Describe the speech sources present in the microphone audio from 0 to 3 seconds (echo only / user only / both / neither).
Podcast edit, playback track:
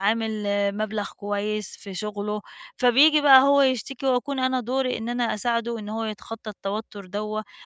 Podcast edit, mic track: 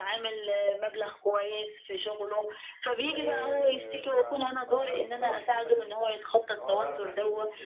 echo only